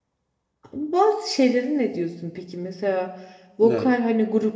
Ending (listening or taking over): listening